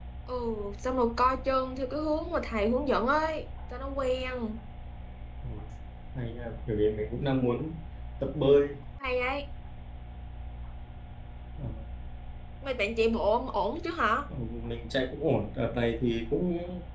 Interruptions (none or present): none